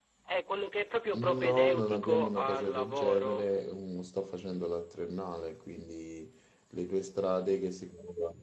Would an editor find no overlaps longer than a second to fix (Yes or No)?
No